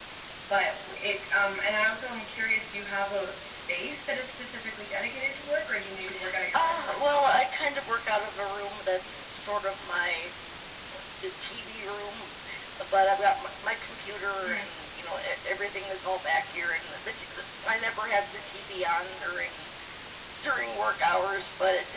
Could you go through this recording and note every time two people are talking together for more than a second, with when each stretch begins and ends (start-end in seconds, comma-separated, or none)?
none